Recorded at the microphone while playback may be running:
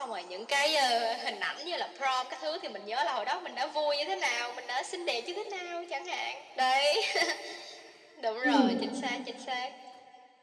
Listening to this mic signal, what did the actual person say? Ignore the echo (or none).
Ừm.